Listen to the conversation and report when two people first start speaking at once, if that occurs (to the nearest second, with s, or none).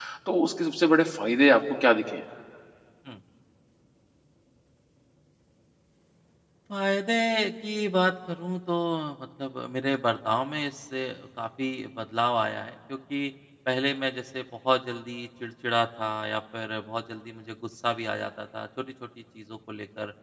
none